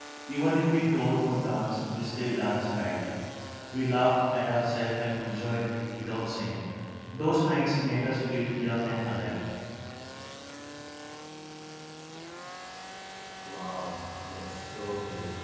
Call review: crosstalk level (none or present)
none